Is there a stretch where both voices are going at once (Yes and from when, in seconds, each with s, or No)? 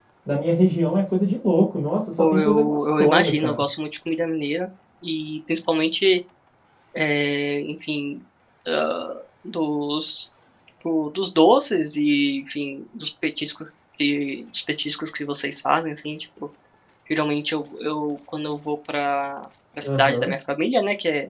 Yes, from 2.2 s